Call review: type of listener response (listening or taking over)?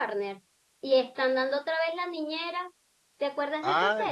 taking over